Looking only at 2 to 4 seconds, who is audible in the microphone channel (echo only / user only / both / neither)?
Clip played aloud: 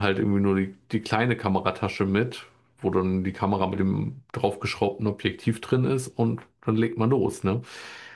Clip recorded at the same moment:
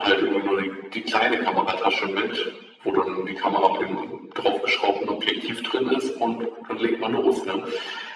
echo only